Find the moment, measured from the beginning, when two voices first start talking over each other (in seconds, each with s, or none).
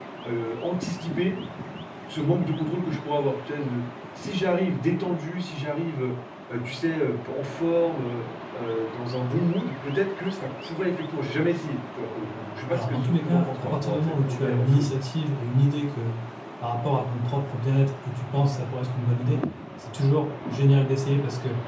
12.7 s